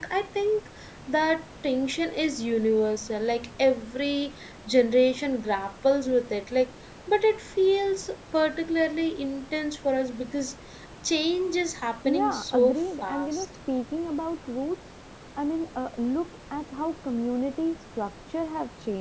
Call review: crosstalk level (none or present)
present